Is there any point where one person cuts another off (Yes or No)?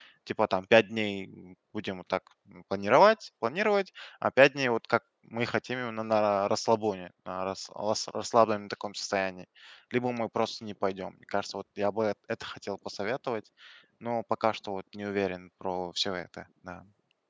No